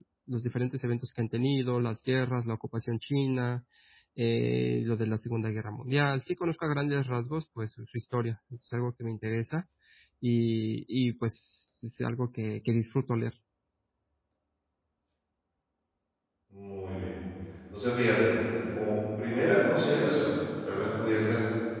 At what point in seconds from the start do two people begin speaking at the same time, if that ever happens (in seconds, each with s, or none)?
none